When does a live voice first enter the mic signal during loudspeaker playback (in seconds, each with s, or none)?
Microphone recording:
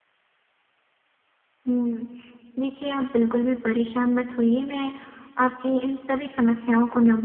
none